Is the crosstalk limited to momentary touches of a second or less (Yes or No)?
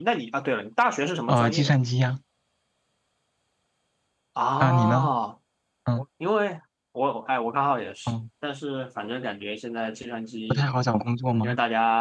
Yes